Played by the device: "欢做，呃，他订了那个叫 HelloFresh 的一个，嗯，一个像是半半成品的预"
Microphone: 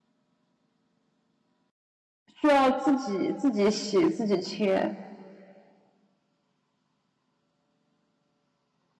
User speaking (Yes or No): Yes